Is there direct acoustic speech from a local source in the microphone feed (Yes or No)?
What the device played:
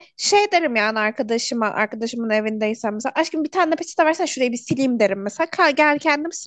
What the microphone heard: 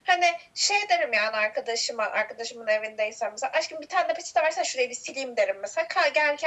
No